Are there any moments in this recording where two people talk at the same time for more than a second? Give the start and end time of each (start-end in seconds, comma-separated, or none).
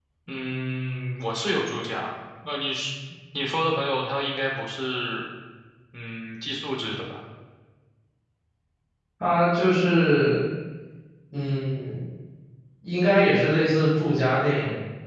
none